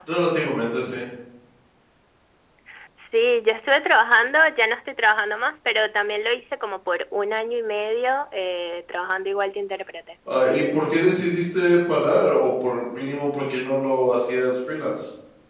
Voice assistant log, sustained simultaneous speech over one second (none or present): none